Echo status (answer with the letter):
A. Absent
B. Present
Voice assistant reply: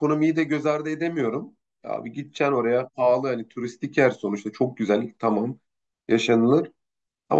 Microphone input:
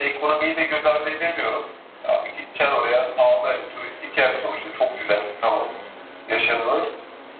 B